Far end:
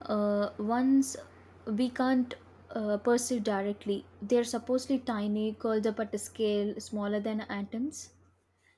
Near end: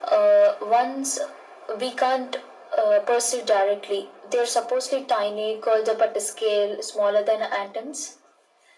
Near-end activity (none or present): none